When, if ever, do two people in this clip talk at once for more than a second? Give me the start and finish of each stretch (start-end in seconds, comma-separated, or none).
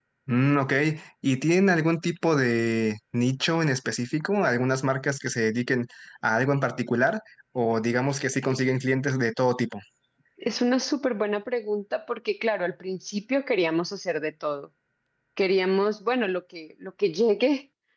none